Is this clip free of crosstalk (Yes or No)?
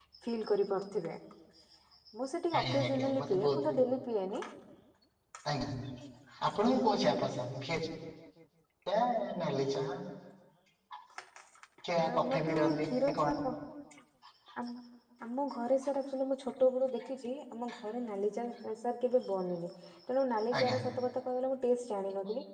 No